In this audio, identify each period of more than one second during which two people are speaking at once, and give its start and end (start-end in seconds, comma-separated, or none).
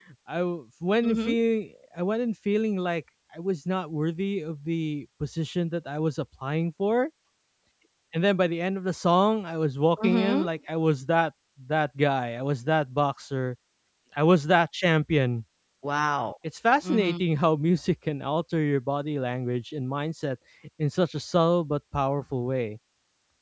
none